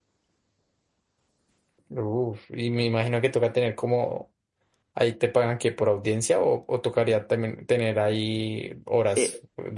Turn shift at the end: Yes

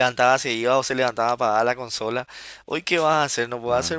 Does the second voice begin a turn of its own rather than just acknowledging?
No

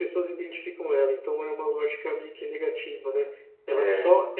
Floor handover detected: No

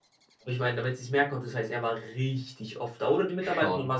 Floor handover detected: No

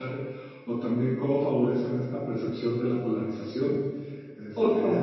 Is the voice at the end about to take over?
No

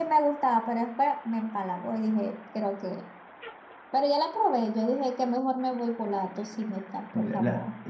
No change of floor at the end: No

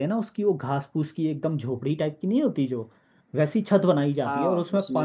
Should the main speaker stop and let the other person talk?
No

